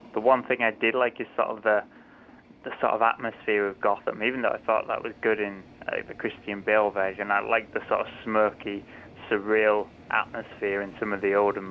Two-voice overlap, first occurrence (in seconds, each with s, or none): none